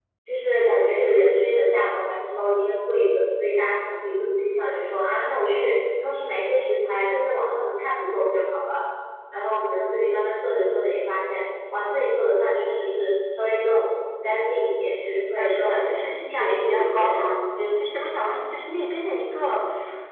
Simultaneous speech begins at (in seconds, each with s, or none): 15.4 s